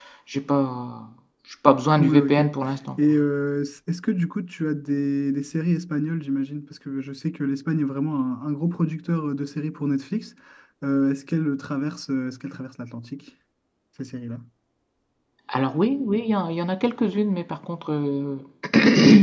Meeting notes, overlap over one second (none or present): none